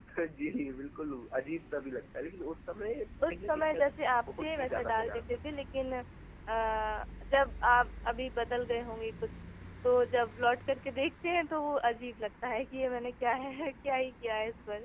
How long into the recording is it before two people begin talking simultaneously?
3 s

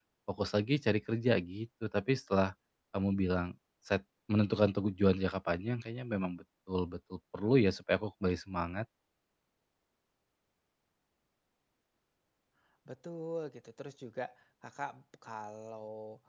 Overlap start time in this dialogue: none

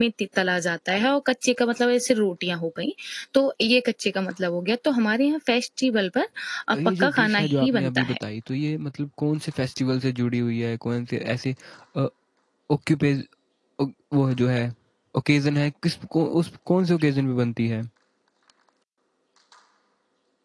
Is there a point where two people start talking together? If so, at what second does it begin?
7 s

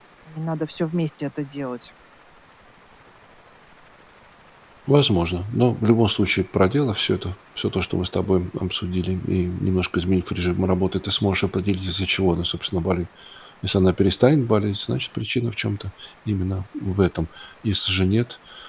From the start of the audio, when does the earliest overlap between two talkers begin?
none

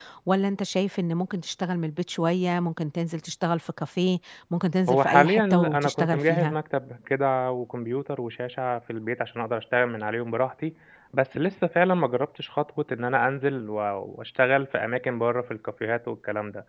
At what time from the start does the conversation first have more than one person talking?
5 s

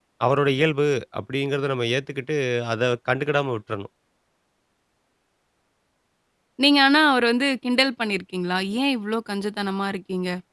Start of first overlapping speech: none

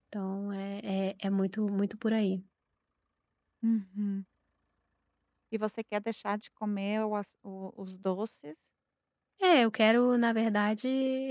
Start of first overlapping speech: none

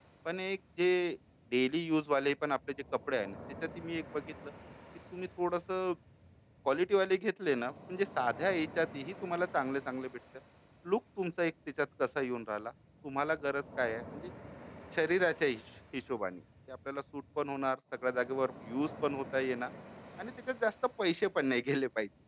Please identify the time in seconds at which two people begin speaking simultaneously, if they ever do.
none

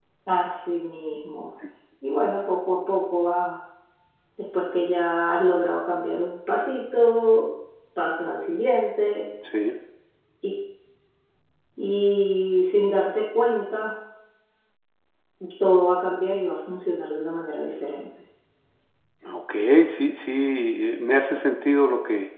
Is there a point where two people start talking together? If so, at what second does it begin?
none

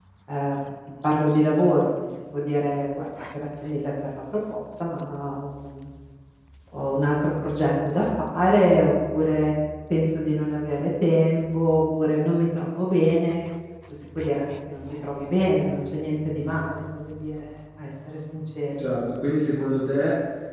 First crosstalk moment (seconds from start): none

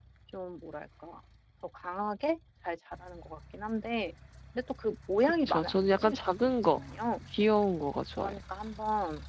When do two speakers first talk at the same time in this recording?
5 s

